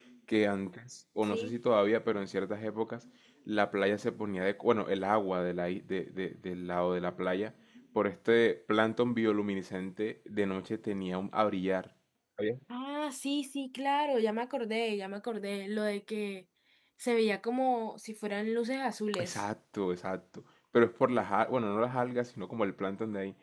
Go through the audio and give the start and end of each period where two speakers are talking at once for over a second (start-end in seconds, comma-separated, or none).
none